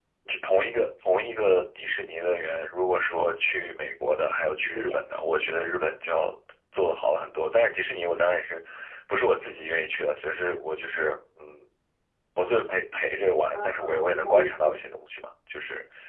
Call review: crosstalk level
present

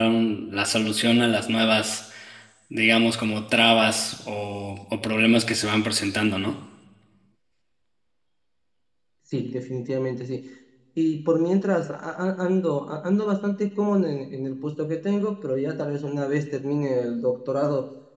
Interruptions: none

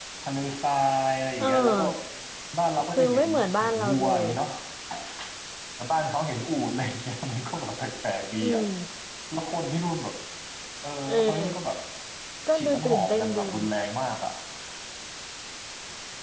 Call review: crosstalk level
present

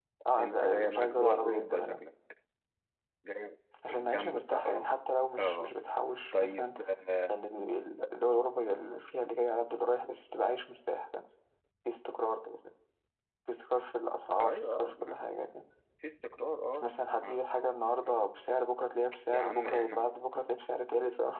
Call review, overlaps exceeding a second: present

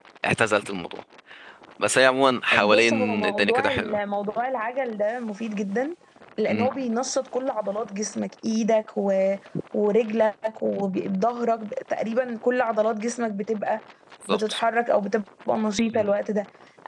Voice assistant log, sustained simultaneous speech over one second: present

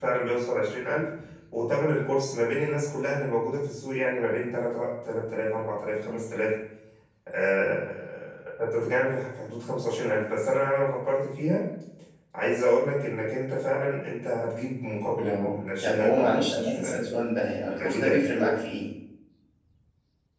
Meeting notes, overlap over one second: present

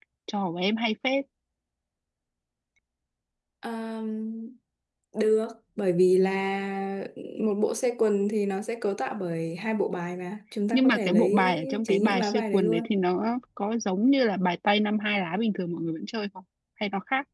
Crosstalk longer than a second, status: present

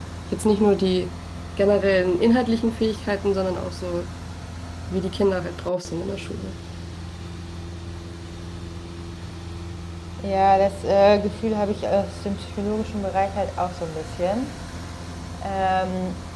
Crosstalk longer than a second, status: none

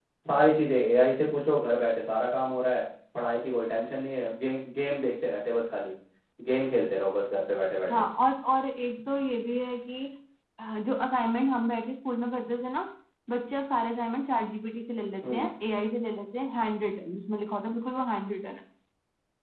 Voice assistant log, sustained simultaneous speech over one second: none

